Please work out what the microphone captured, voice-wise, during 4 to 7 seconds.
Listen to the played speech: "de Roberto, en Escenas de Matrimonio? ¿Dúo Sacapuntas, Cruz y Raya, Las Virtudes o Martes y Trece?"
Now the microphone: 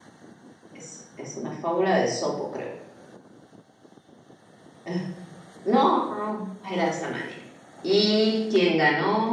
user only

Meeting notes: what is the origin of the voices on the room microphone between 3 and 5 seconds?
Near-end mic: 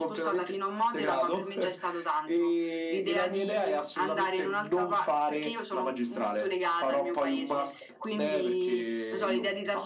echo only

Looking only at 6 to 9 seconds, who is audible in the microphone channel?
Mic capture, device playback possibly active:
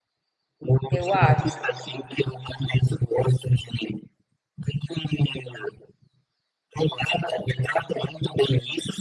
echo only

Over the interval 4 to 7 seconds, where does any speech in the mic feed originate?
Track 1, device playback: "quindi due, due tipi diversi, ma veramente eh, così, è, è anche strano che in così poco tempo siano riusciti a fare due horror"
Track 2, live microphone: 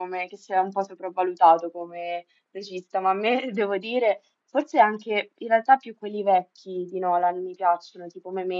user only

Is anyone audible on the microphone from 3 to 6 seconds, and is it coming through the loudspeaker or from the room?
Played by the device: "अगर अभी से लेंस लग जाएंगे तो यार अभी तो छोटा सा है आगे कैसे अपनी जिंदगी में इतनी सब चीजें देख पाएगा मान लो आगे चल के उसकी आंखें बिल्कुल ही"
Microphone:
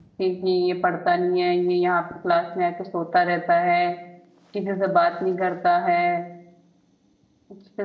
user only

